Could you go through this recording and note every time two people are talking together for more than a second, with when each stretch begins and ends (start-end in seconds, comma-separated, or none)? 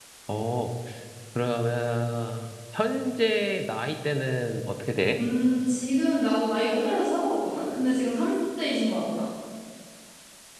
none